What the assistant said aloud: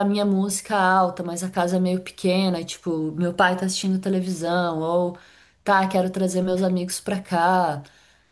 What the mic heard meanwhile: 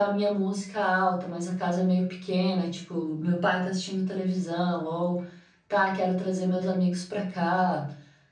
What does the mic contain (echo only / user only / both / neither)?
echo only